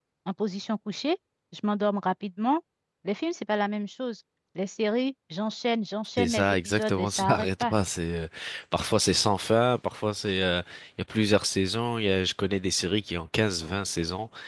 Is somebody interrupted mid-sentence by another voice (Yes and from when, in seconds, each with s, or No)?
Yes, from 6.2 s